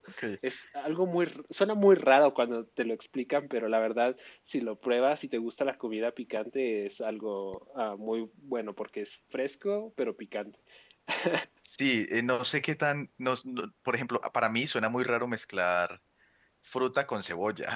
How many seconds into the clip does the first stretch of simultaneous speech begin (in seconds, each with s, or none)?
none